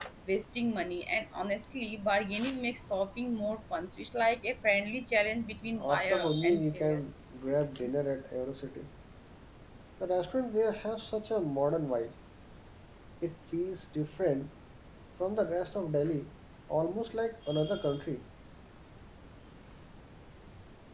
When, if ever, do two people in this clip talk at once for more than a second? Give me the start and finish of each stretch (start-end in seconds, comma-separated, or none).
5.8-7.0